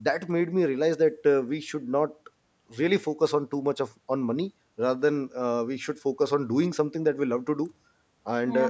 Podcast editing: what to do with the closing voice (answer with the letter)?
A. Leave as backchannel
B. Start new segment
A